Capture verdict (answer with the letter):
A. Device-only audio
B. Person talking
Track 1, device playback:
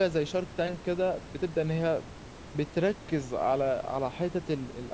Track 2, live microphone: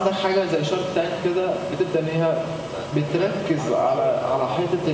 B